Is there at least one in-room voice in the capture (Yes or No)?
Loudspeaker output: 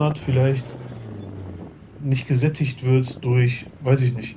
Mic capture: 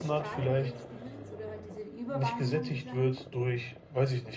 Yes